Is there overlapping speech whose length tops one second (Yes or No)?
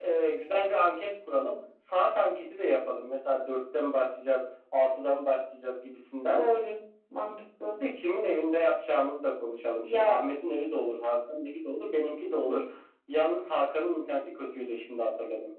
No